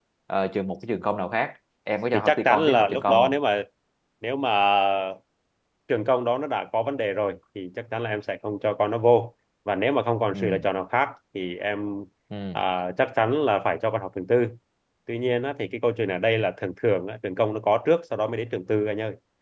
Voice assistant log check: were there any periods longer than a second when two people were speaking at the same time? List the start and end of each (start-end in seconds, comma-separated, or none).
2.1-3.4